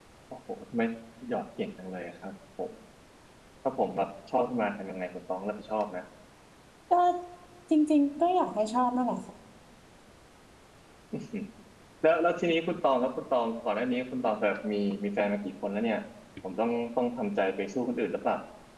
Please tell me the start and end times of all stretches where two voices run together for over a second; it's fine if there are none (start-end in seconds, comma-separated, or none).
none